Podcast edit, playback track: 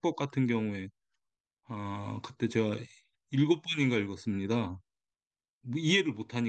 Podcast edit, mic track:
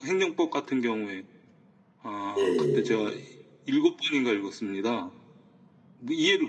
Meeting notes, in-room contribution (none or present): present